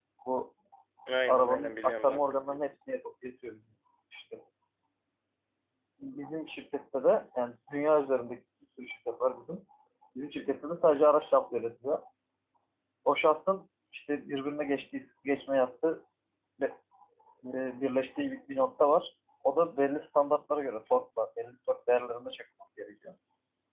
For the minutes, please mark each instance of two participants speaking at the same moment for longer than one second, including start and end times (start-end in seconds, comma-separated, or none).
1.3-2.7